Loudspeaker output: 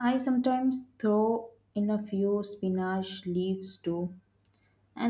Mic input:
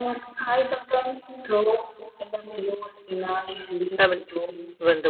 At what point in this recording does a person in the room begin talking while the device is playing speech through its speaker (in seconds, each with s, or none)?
4.0 s